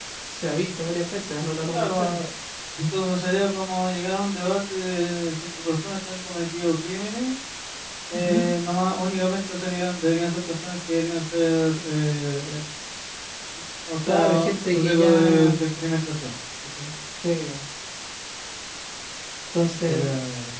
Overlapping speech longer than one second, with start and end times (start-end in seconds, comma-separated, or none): 14.1-15.6